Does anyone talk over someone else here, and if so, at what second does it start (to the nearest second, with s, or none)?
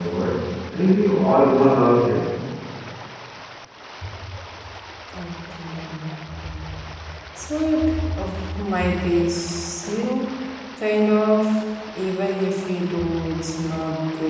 none